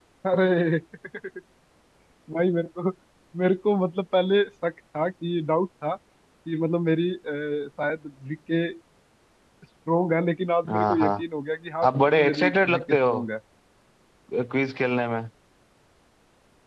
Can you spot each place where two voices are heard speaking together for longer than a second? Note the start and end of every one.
11.8-13.1

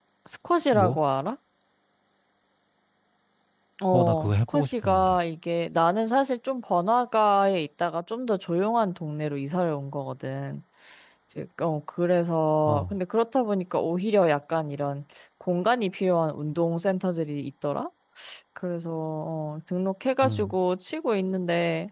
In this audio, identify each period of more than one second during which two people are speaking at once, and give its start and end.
3.9-5.2

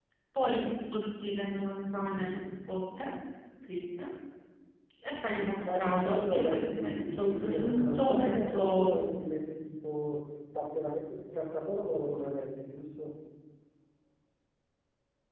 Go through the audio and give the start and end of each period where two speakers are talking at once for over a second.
5.6-8.9

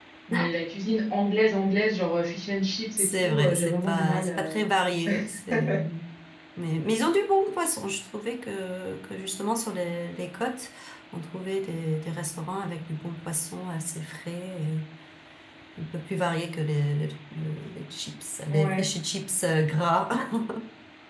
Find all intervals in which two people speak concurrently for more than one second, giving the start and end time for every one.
3.0-4.6

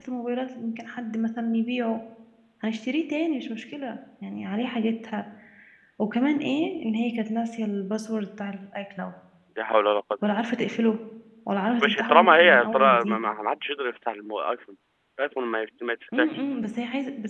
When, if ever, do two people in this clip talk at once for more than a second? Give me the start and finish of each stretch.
11.8-13.2

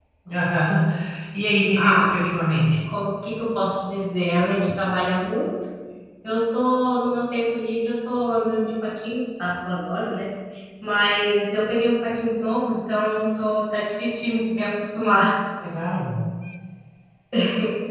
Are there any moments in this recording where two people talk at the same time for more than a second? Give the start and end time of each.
none

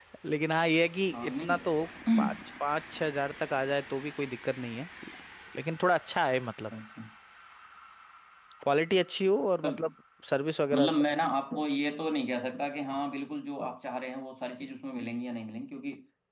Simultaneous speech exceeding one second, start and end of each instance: none

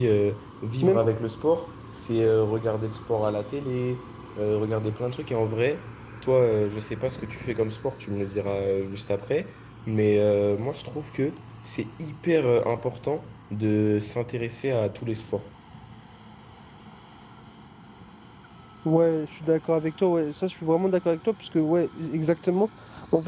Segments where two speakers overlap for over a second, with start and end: none

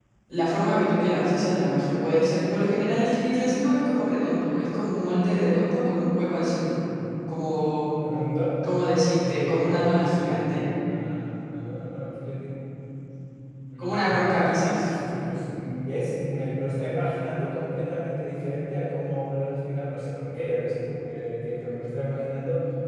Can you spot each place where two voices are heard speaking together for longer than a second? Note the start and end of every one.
9.1-10.7

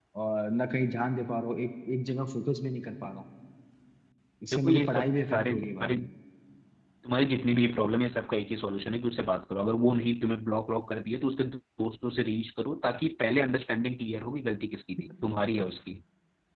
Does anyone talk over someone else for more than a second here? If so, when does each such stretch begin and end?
4.5-5.9

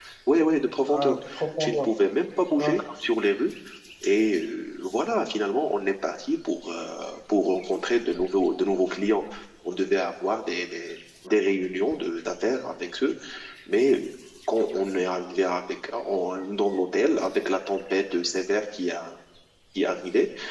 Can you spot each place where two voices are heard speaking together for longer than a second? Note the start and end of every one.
none

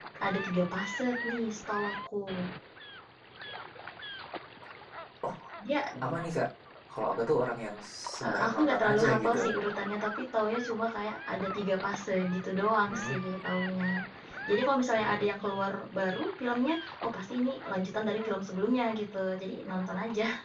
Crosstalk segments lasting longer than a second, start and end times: 8.2-9.4

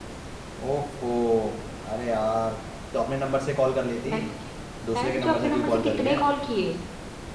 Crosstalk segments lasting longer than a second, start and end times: 5.0-6.2

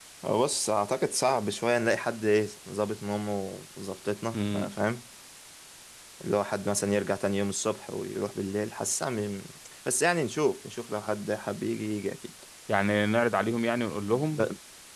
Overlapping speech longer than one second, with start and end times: none

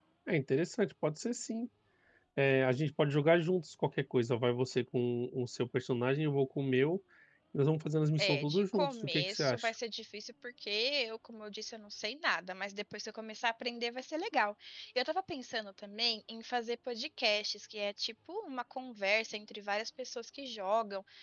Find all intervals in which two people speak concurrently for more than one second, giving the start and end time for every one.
8.2-9.7

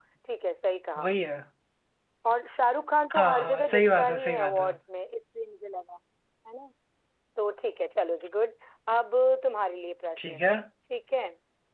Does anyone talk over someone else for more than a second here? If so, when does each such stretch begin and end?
3.1-4.7

